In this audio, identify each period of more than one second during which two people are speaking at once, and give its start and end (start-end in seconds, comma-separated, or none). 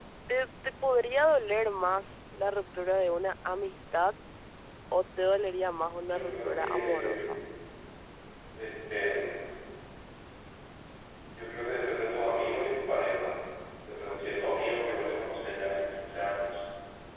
6.0-7.2